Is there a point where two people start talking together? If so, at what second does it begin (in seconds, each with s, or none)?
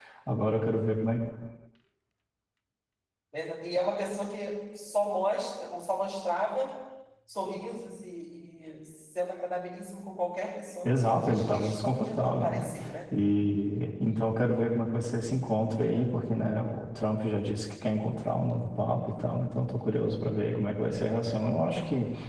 10.8 s